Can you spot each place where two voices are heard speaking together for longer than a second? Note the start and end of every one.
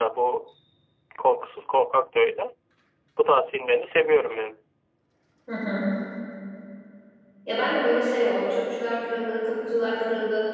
none

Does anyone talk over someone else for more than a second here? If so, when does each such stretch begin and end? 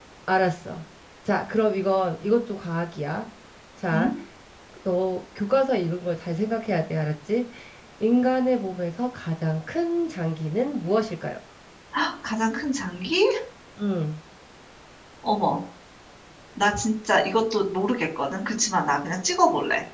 none

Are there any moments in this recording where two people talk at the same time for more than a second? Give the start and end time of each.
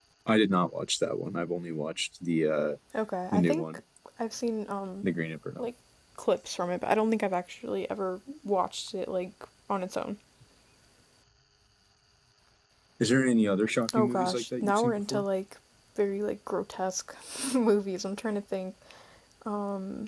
14.0-15.2

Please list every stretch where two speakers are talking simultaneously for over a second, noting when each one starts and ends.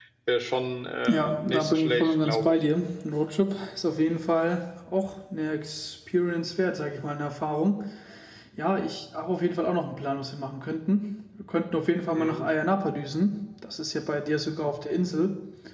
1.1-2.6

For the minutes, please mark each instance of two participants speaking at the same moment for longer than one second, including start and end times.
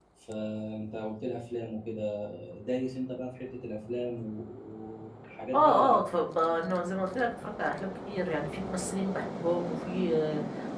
none

